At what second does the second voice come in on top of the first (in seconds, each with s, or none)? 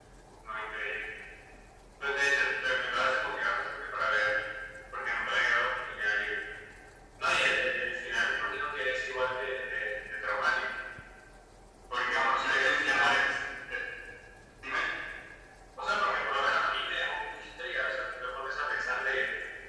12.0 s